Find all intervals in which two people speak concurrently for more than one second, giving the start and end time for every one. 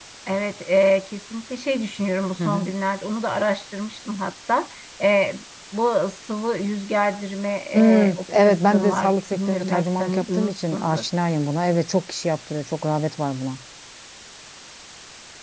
7.7-11.0

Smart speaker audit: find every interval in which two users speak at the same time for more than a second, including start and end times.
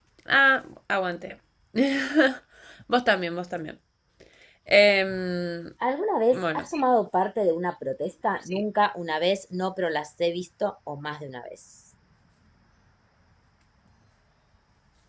none

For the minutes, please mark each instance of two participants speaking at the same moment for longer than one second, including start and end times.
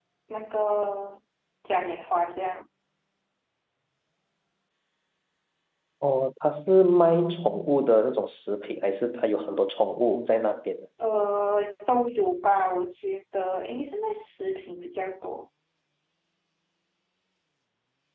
none

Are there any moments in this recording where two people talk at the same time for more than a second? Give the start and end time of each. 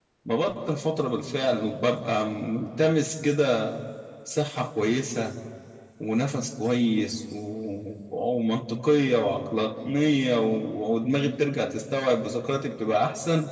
none

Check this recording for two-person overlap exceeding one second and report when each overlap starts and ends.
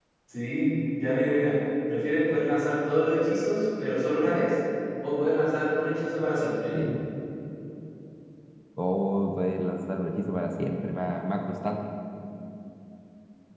none

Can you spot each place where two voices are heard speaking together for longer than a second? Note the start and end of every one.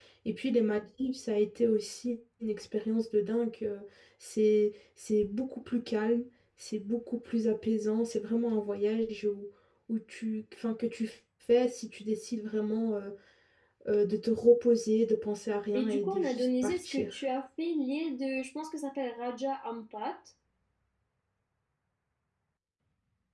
15.7-17.1

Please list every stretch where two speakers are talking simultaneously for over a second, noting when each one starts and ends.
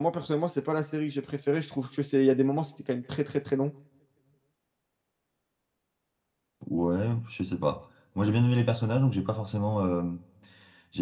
none

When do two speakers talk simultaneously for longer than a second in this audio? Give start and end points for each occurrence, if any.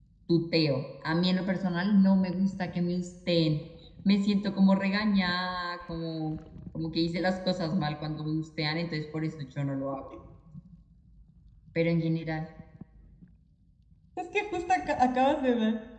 none

